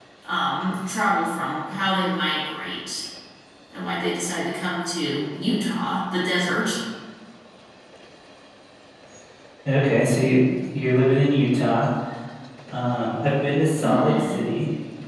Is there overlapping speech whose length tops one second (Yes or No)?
No